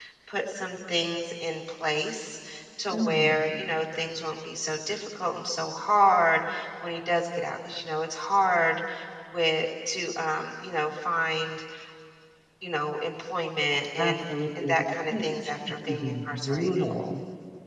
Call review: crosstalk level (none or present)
present